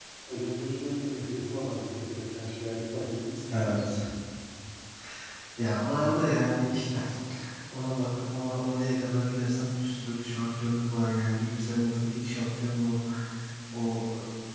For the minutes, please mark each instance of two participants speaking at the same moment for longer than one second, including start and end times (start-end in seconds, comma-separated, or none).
none